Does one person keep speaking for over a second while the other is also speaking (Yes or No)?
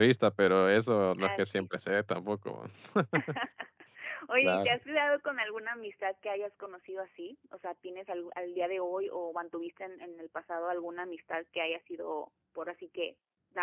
No